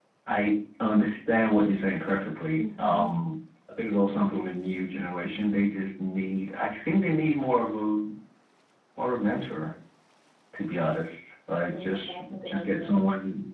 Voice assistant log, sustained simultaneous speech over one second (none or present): present